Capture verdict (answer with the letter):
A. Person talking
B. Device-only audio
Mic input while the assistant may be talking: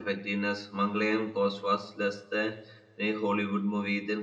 A